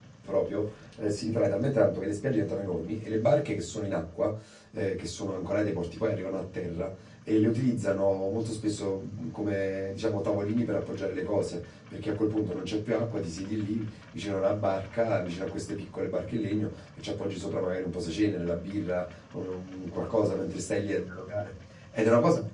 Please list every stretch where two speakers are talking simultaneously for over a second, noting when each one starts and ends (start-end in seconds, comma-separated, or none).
none